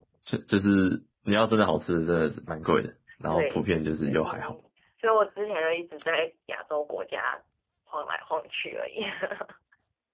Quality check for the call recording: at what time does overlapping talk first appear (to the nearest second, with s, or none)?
3 s